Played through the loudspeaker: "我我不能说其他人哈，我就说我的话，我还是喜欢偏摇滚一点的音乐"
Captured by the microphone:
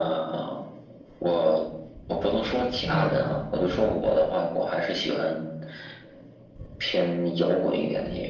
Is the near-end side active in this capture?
Yes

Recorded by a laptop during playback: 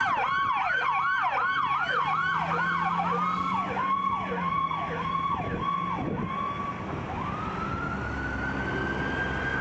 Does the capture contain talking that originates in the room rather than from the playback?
No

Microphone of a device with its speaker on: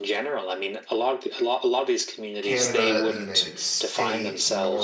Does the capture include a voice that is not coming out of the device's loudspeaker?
Yes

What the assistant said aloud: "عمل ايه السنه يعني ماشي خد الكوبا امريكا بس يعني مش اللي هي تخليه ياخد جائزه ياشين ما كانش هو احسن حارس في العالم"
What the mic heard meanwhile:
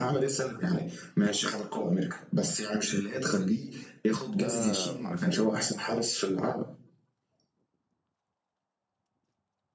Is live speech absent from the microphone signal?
No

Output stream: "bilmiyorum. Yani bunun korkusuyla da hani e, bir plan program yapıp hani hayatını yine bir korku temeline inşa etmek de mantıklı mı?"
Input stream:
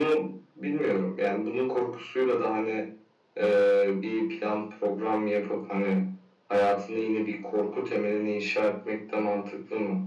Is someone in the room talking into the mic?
No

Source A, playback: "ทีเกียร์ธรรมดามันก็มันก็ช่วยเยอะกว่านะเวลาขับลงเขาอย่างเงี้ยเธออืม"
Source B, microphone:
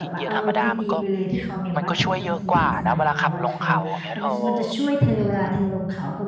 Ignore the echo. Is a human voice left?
Yes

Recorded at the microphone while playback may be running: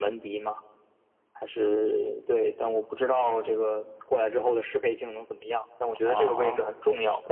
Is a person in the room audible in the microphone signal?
Yes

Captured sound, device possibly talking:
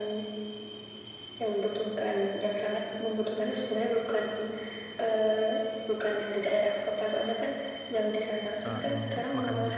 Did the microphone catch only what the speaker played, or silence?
No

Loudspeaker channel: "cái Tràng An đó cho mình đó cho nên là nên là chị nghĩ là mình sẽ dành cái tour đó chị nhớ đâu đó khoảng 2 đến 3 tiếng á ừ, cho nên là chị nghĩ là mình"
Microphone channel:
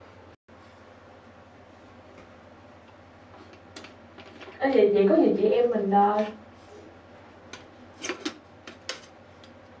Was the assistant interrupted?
Yes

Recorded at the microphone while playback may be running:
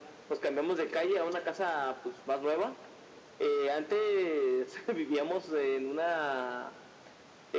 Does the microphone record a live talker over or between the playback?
No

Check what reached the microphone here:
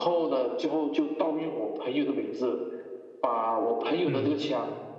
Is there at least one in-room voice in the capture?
Yes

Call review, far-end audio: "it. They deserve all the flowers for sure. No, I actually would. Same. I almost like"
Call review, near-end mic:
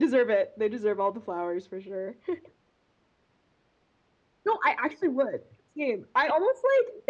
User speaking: No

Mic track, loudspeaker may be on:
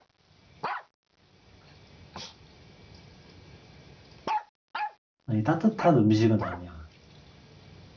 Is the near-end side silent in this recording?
No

